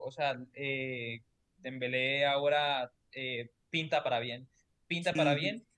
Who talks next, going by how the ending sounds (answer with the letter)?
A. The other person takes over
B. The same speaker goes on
B